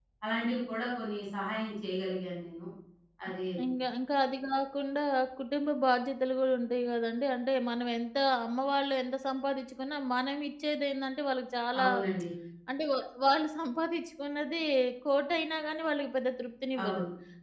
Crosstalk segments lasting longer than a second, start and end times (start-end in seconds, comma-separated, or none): none